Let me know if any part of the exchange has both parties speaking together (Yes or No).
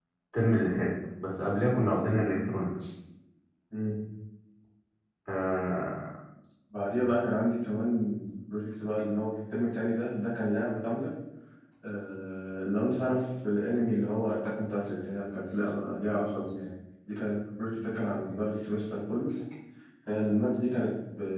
No